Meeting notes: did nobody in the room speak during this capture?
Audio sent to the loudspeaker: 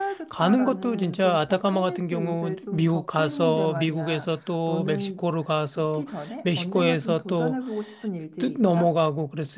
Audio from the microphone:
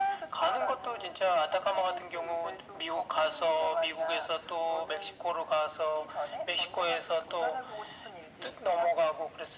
Yes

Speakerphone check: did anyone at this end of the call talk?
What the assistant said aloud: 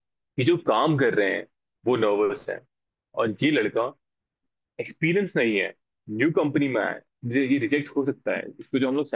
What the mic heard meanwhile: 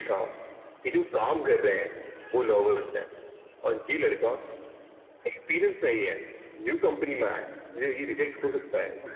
No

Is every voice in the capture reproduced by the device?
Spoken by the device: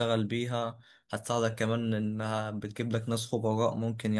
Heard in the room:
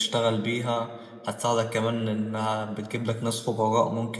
Yes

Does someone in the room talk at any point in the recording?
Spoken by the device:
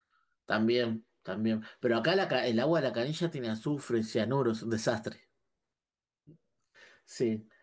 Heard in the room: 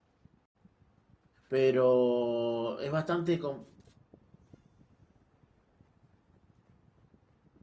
Yes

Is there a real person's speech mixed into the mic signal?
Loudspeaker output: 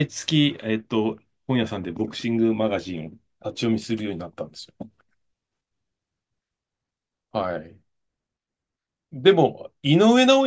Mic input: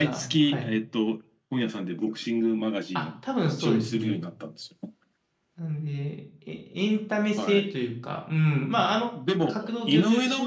Yes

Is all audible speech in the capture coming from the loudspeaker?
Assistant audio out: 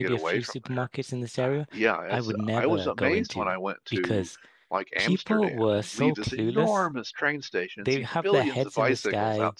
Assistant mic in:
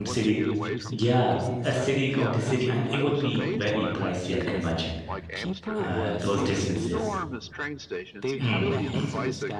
No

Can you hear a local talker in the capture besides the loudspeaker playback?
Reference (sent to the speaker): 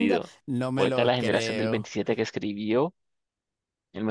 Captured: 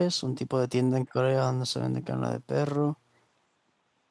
Yes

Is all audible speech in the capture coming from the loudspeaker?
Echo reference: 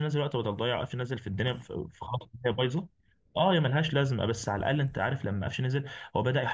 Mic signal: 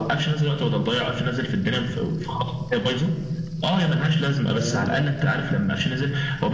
No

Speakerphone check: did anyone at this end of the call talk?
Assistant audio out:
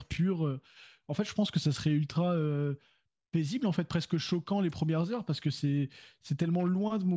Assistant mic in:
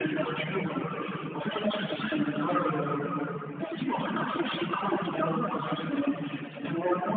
No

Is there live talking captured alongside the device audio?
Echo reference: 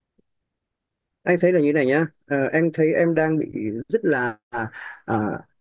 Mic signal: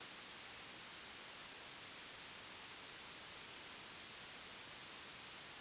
No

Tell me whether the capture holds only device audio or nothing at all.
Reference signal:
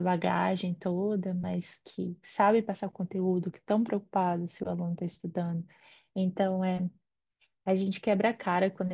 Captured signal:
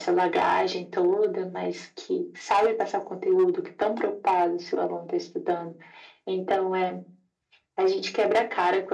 Yes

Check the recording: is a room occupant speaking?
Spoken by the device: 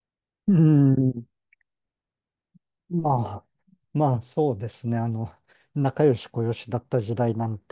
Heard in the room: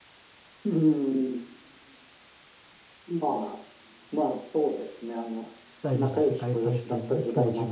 Yes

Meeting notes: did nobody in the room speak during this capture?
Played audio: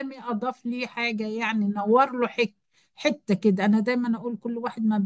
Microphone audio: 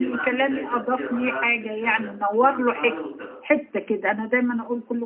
No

